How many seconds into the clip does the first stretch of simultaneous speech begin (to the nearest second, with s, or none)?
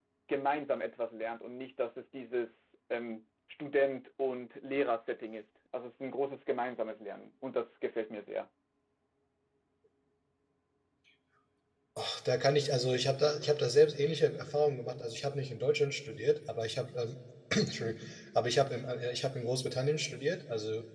none